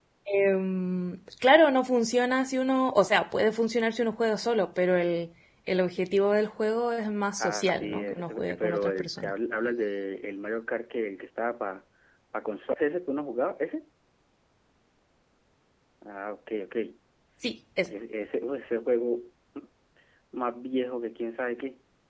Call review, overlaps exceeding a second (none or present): present